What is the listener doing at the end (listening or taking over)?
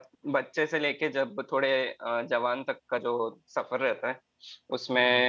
listening